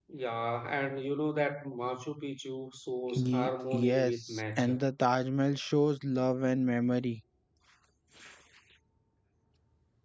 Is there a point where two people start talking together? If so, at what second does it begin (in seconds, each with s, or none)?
3.1 s